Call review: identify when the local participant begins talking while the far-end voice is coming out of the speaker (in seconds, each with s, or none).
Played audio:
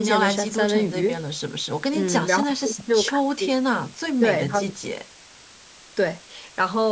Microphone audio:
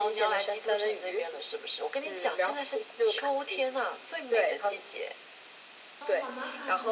6.0 s